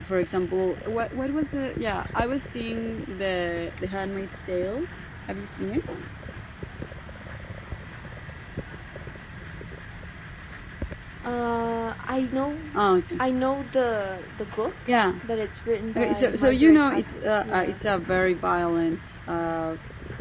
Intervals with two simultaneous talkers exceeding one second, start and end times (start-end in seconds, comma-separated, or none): 15.9-17.8